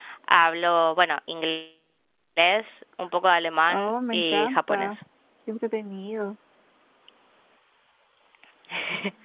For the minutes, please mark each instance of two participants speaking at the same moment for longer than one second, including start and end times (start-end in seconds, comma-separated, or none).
3.7-5.0